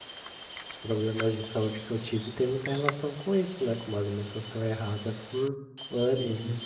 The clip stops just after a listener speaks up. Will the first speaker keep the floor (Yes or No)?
No